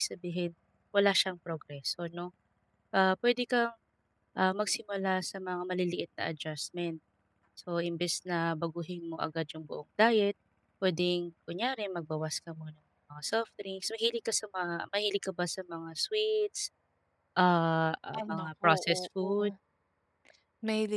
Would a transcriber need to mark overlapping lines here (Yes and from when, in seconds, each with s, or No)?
Yes, from 18.2 s